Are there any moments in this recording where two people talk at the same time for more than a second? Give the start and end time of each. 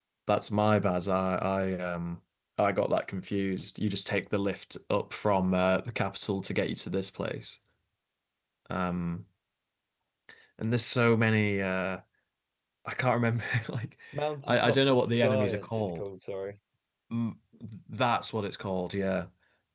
14.4-16.0

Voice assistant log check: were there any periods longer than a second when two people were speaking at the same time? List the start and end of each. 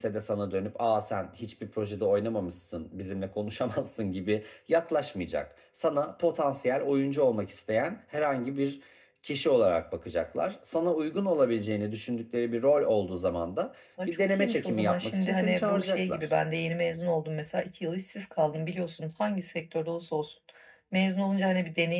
14.1-16.3

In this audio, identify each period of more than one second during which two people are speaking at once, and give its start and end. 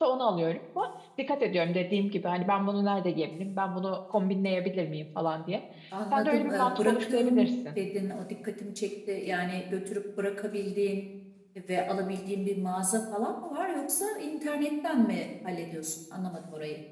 6.1-7.8

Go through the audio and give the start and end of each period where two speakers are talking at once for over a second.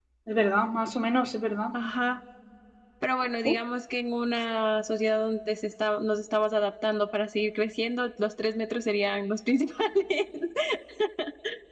none

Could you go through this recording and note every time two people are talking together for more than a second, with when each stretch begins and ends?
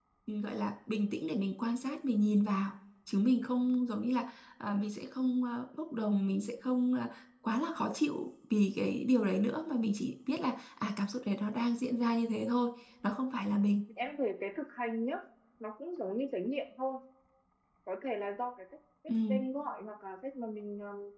none

